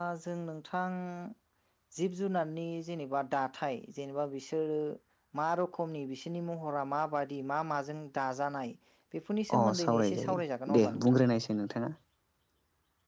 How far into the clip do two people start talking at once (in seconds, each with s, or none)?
9.6 s